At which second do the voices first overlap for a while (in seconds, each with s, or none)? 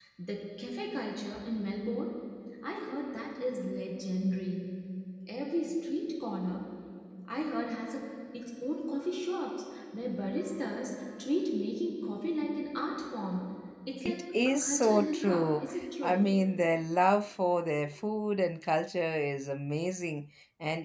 14.0 s